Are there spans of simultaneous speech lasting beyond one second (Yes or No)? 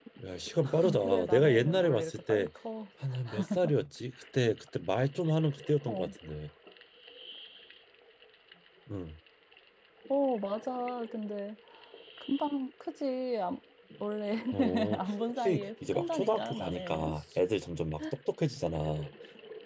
Yes